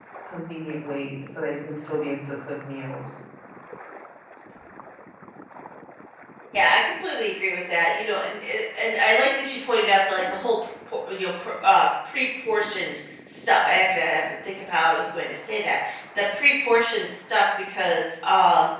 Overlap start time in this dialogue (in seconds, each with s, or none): none